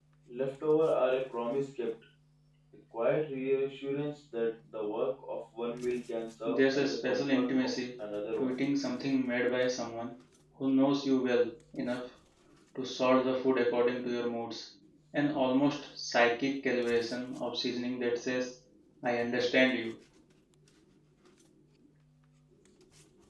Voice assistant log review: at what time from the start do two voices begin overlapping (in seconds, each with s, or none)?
6.4 s